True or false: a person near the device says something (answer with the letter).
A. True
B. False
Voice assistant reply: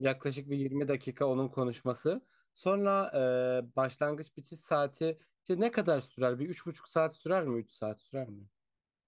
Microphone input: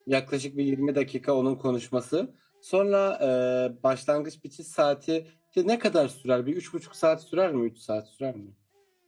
B